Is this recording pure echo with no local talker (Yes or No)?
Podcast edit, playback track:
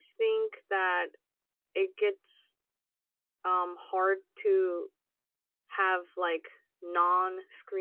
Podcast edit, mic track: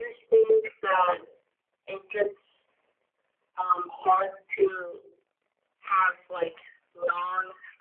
Yes